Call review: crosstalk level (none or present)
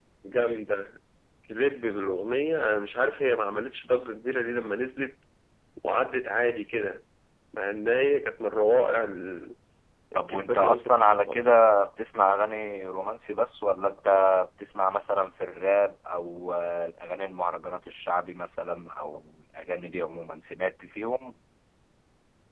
present